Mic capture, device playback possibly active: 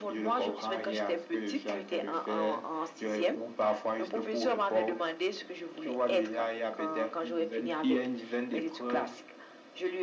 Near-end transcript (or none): none